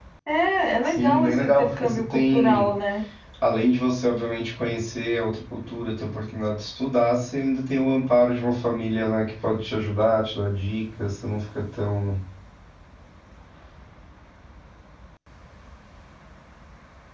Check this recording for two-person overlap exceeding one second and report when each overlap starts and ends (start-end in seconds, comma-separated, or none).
0.8-2.7